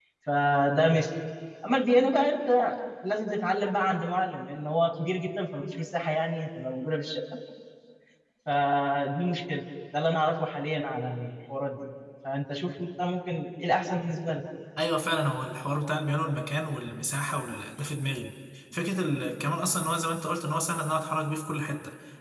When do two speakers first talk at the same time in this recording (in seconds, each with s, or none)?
none